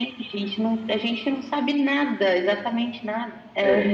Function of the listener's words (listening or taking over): taking over